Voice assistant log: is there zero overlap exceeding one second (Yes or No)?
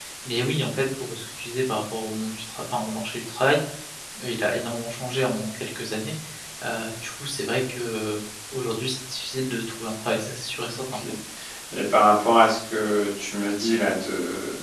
Yes